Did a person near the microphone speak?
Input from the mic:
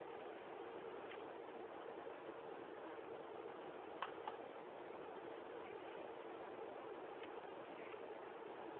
No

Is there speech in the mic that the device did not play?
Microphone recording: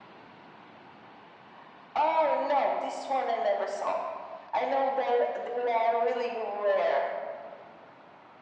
No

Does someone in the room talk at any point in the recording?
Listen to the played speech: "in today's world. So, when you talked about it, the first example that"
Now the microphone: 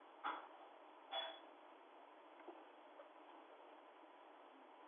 No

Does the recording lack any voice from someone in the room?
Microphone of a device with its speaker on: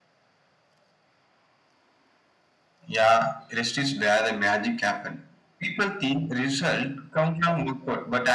Yes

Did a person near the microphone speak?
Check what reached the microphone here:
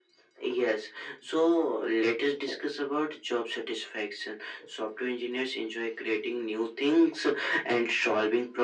No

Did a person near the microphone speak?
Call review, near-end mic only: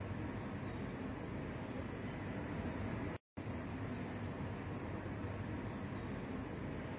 No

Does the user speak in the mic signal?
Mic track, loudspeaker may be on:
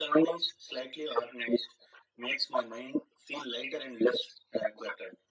No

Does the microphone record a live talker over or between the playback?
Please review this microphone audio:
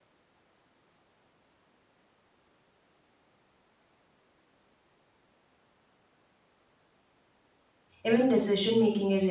Yes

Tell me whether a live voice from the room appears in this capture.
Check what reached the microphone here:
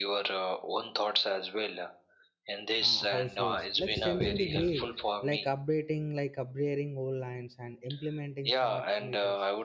Yes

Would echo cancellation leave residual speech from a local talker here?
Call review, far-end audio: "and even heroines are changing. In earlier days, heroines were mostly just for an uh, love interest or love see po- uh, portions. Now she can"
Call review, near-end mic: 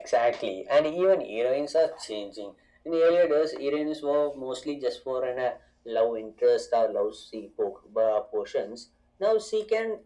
No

